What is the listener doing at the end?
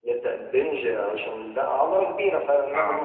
listening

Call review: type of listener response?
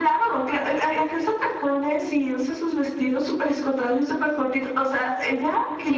taking over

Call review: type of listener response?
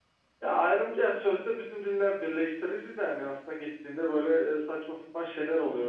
taking over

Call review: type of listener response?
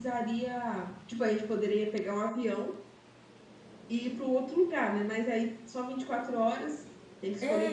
taking over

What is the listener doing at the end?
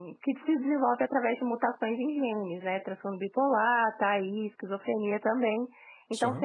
listening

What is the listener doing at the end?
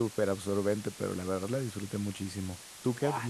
taking over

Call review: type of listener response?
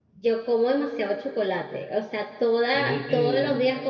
listening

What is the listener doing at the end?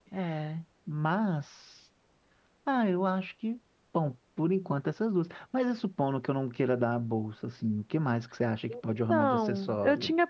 taking over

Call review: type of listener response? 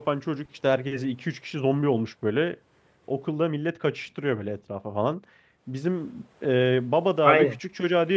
listening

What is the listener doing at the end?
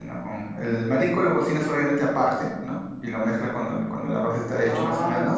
taking over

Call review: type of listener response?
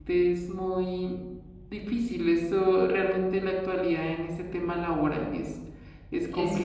taking over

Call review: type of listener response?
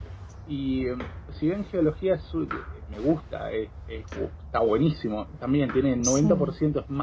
listening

